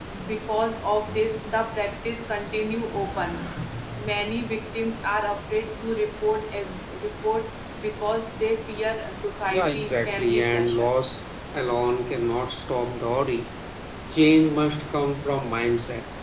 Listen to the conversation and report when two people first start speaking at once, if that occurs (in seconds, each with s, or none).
9.5 s